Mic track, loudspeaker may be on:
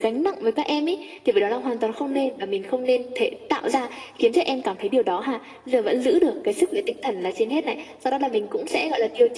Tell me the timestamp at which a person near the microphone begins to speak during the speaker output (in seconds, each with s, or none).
none